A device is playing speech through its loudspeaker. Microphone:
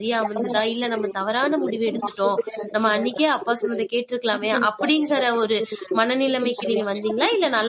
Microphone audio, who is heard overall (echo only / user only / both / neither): both